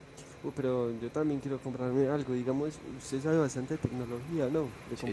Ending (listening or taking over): taking over